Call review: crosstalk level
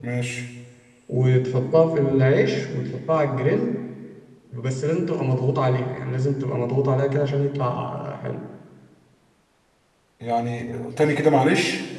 none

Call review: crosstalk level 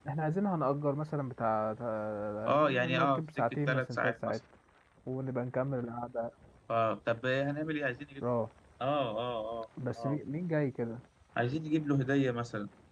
present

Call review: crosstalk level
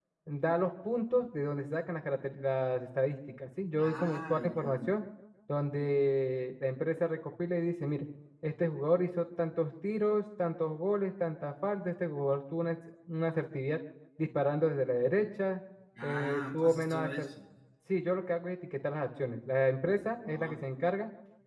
present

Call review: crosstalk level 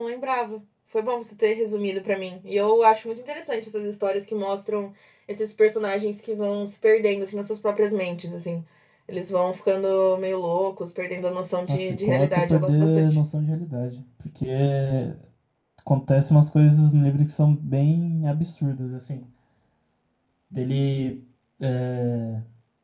present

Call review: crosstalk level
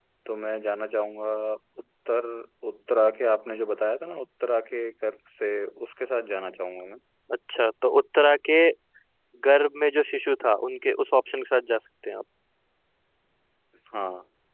none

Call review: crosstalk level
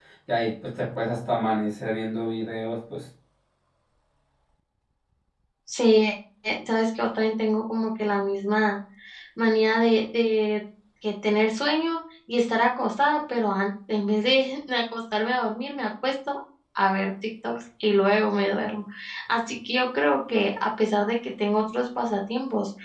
none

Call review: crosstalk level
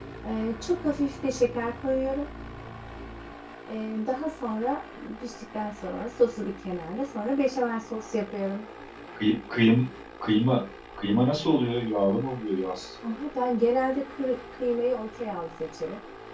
none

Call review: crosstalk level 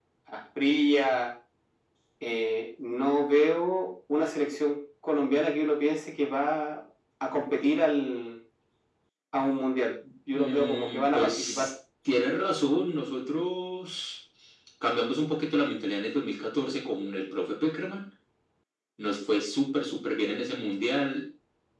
present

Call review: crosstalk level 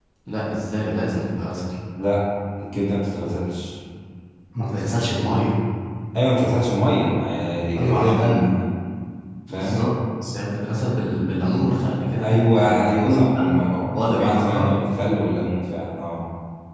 present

